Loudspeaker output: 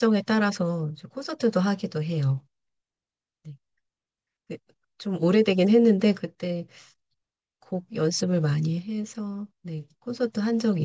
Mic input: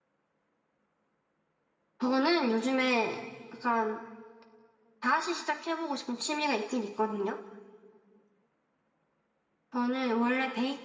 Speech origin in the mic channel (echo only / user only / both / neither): user only